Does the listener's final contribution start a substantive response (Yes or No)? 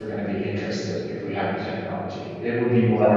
No